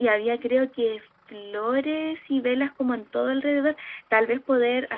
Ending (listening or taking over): listening